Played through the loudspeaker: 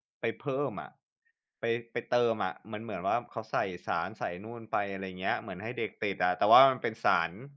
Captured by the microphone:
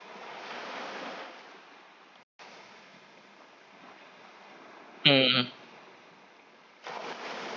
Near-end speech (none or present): present